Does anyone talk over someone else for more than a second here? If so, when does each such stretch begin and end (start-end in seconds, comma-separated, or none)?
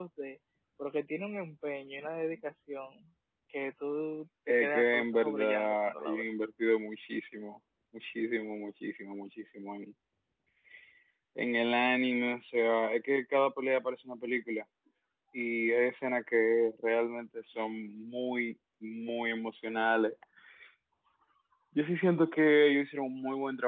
4.5-6.2